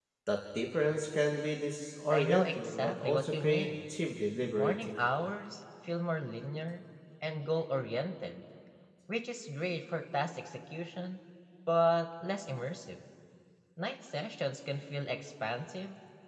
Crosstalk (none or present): present